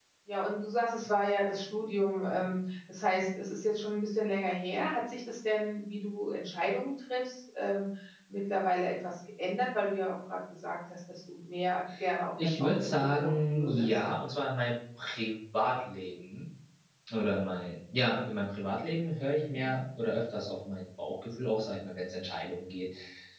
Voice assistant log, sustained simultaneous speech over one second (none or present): present